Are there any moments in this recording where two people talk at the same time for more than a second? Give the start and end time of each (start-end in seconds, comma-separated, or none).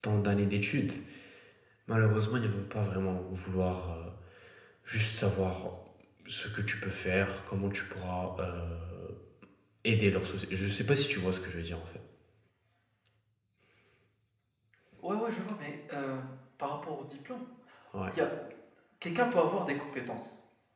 none